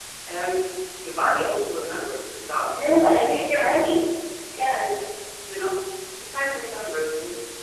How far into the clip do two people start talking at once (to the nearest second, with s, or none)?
3 s